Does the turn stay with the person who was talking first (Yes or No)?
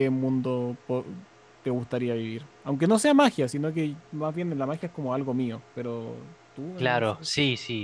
No